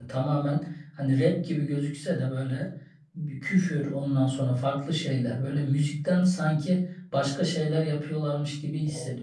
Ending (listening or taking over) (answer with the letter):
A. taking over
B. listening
A